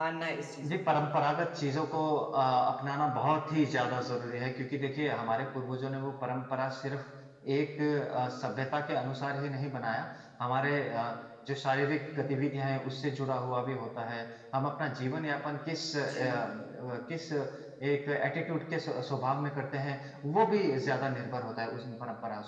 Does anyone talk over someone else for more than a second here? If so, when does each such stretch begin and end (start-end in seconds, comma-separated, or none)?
none